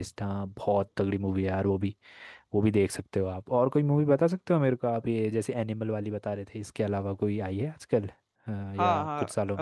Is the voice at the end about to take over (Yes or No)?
Yes